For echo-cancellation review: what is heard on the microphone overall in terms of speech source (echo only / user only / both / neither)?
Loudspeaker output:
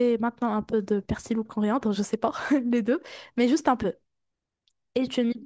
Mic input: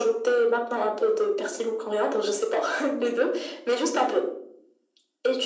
echo only